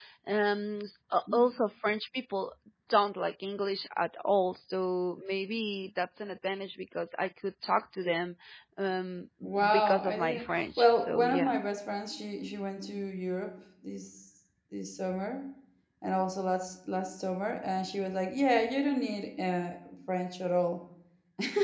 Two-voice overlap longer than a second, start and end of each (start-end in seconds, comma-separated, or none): 9.7-11.6